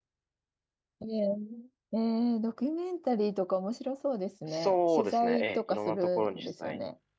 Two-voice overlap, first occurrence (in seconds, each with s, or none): 4.5 s